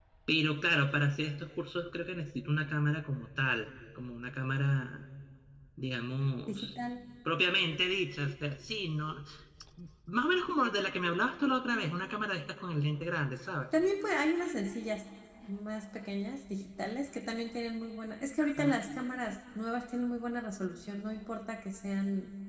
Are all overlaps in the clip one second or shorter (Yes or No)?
Yes